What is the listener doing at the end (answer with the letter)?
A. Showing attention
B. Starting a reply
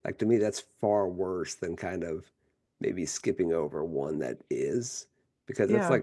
A